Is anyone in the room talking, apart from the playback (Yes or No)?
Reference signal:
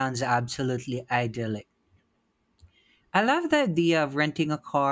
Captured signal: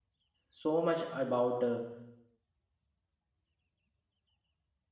Yes